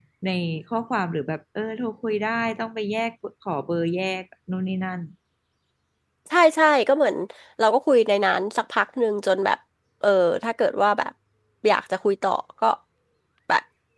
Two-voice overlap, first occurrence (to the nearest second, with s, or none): none